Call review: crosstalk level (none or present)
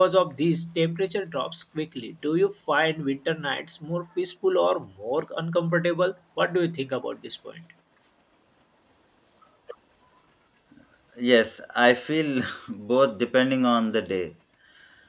none